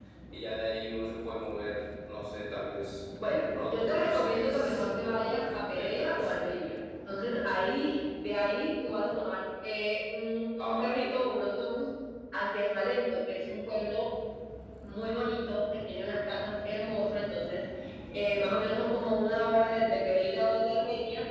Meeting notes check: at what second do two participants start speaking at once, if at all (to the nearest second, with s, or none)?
4 s